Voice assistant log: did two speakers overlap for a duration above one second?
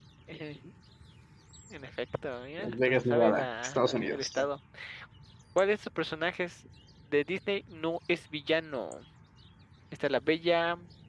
Yes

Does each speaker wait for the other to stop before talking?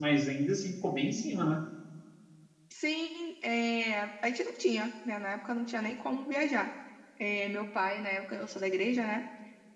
Yes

